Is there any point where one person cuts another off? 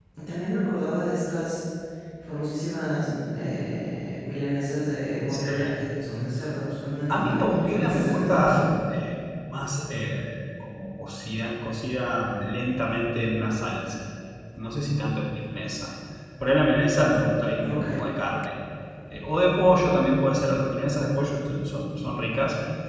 Yes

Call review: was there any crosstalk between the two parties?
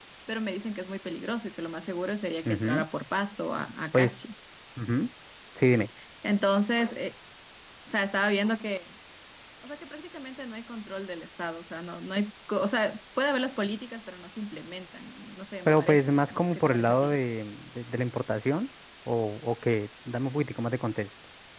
Yes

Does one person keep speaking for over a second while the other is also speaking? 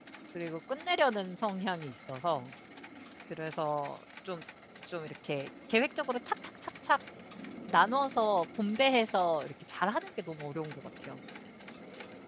No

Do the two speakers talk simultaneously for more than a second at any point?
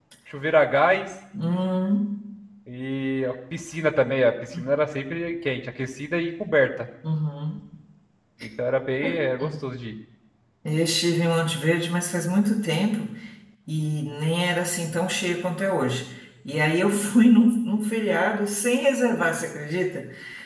No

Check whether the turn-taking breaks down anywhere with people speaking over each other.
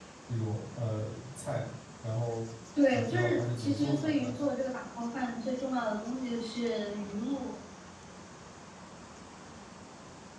Yes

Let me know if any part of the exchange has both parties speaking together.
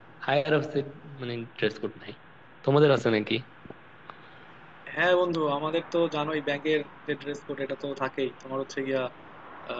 No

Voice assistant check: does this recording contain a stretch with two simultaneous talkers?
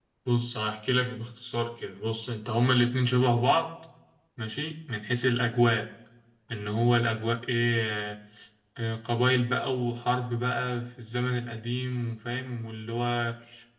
No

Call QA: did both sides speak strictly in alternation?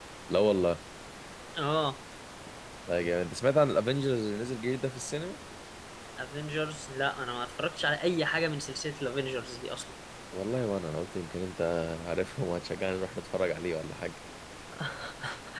Yes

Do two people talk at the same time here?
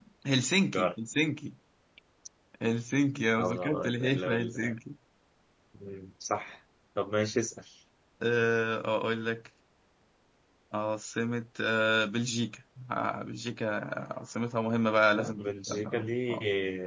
Yes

